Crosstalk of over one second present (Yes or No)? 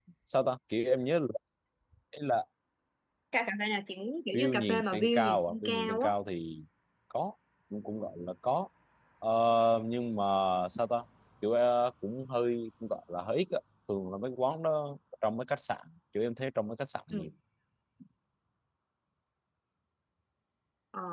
Yes